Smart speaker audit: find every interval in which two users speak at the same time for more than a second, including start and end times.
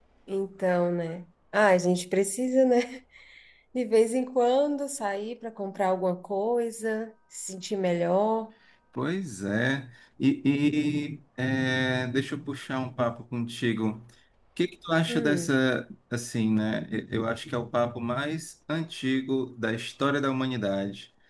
none

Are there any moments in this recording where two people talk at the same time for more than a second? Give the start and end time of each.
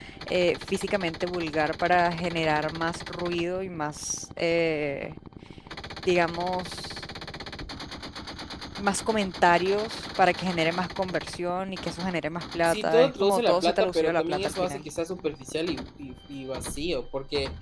12.7-14.8

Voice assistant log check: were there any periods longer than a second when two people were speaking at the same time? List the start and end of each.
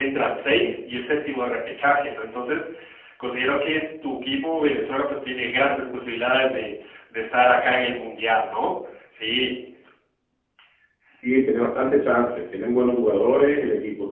none

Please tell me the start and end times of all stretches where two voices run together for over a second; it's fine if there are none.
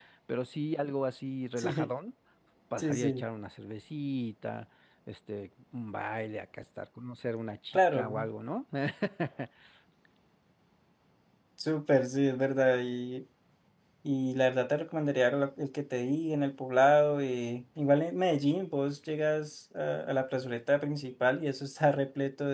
none

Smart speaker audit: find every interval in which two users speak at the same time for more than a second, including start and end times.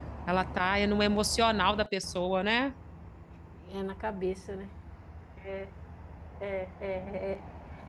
none

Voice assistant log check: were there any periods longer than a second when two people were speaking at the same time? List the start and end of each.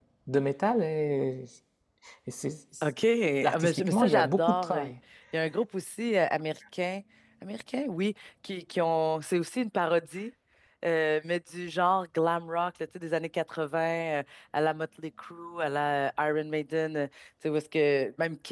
3.5-4.9

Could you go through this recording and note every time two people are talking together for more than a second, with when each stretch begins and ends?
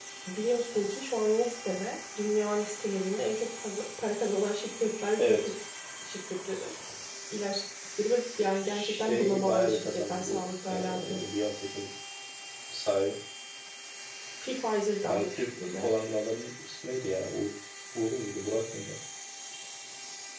8.6-11.2

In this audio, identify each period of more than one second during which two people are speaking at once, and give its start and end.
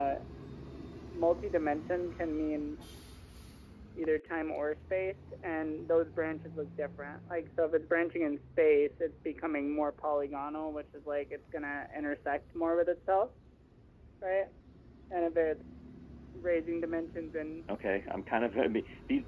none

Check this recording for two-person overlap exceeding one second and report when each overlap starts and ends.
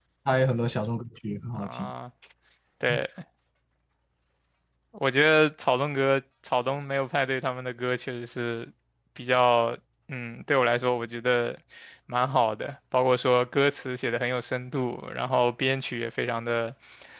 none

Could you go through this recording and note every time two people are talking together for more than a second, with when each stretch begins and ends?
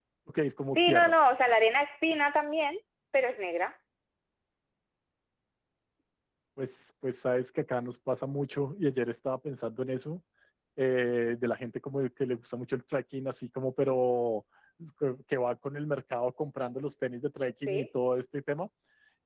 none

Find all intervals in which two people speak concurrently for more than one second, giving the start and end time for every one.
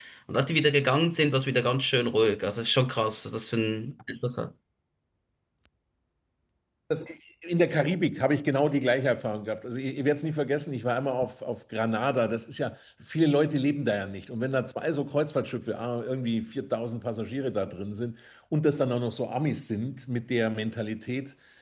none

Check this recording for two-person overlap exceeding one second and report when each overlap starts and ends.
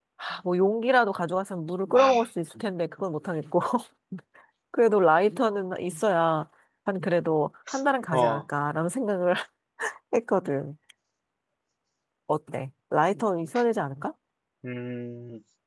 none

